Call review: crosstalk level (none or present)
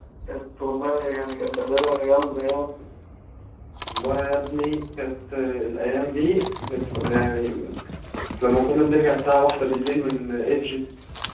none